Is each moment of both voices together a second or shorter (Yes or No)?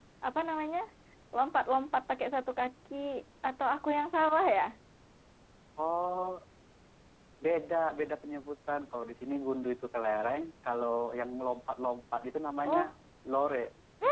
Yes